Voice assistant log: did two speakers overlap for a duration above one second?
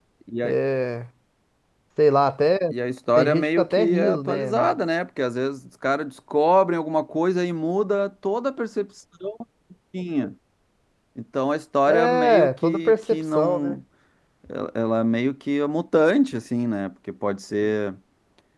Yes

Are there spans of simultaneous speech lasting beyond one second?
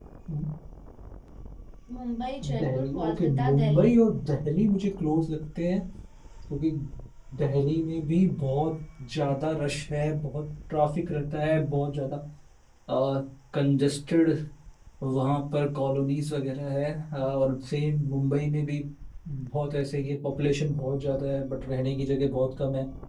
Yes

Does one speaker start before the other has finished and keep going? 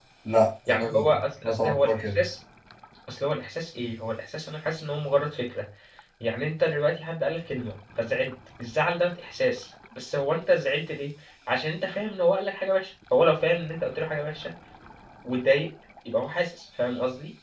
Yes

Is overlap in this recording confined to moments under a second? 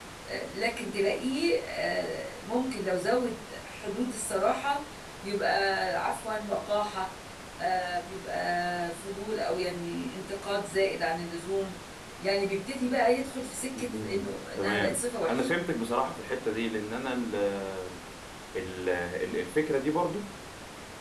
No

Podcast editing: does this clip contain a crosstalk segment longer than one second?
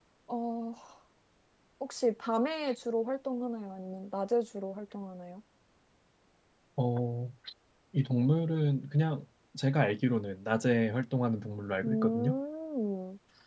No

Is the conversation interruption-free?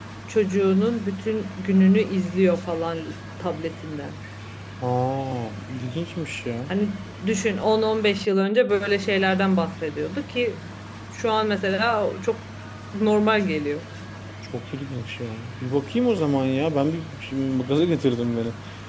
Yes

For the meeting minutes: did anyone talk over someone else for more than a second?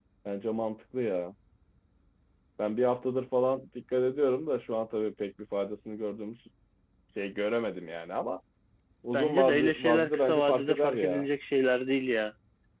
Yes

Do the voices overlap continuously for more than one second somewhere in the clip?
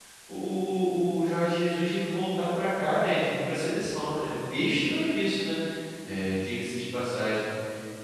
No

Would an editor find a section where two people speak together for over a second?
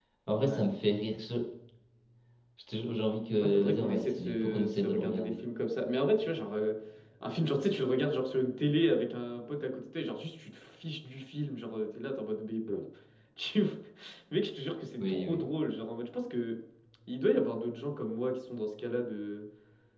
Yes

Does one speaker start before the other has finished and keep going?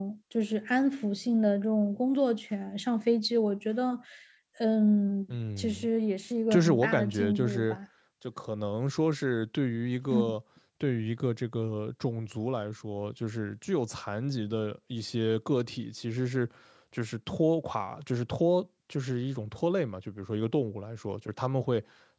Yes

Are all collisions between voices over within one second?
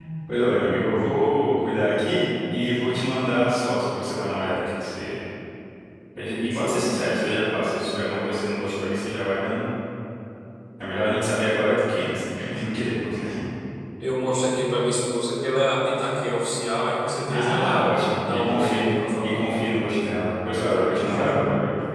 No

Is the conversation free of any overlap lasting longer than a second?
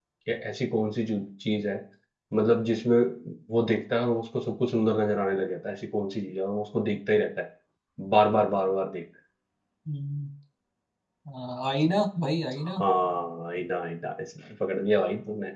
Yes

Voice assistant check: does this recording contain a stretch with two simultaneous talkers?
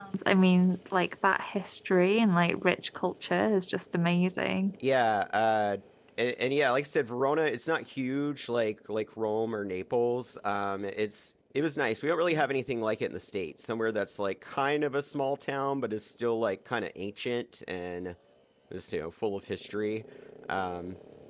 No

